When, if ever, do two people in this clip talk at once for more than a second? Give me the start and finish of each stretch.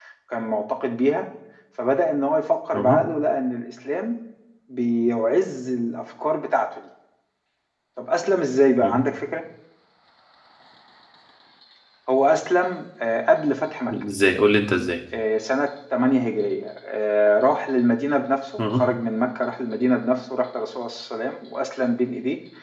none

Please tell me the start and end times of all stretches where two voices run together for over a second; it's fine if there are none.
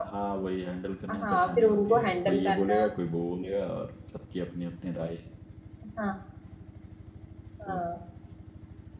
1.2-2.9

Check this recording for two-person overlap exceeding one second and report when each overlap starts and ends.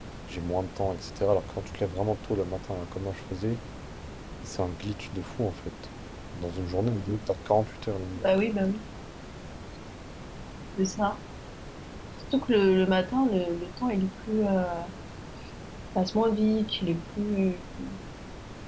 none

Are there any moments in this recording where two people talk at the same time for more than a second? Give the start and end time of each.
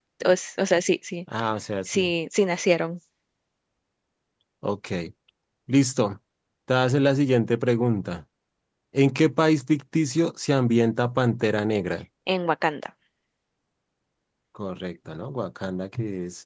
none

